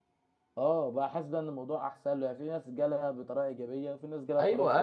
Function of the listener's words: taking over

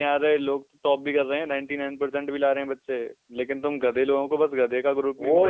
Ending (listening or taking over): taking over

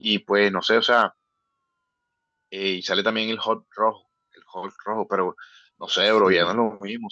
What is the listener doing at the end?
listening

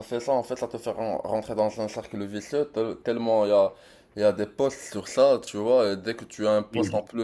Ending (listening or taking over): listening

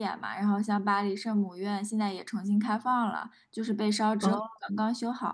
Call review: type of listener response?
listening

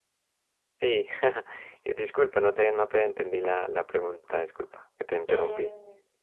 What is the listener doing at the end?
taking over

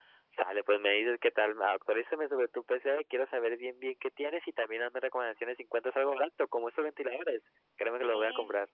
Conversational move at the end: taking over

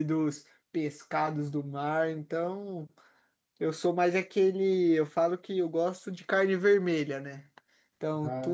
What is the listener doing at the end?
listening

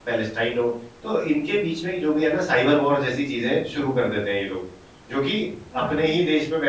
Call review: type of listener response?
listening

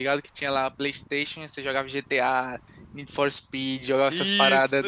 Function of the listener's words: taking over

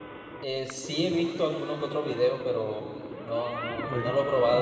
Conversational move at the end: taking over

